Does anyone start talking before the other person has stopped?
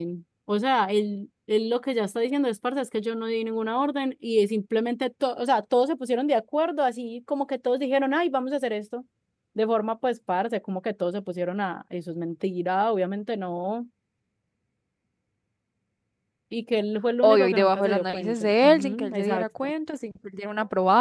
Yes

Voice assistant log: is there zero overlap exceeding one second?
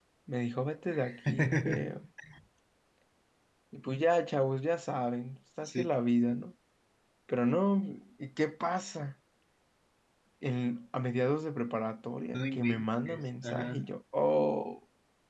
No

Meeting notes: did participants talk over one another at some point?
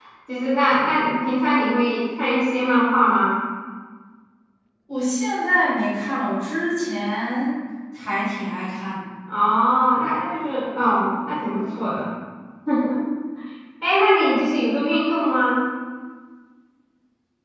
No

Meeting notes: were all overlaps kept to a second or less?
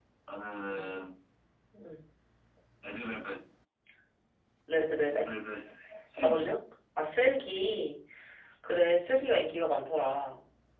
Yes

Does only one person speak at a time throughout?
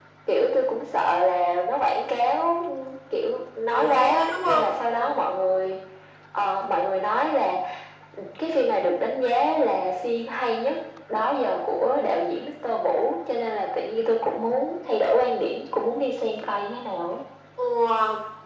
No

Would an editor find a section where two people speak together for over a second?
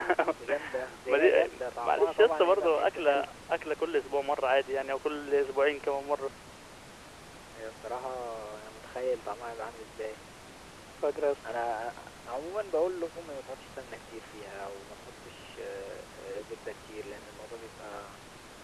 Yes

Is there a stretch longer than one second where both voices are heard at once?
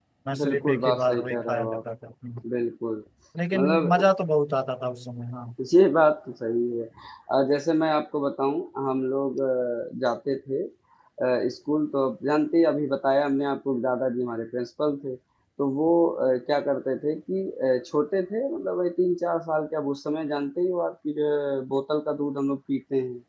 Yes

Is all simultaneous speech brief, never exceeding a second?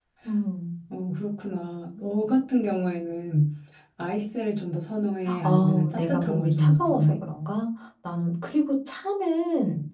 No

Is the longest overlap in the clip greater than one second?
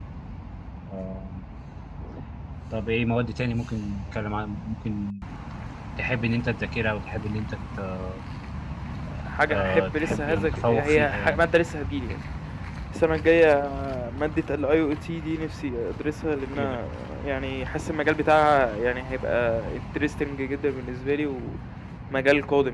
Yes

